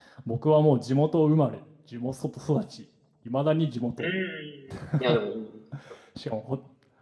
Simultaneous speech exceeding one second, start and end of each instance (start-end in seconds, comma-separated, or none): none